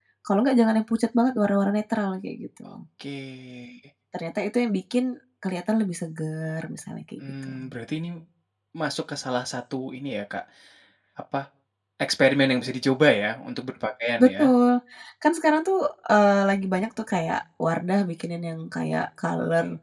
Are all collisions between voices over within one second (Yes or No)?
Yes